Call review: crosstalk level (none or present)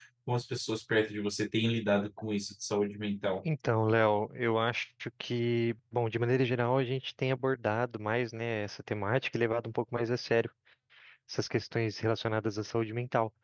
none